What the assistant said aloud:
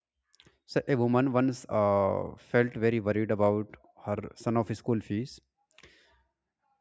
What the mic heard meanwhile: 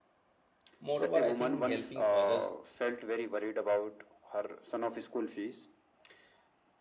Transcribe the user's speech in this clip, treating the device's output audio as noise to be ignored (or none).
Moreover, I think helping others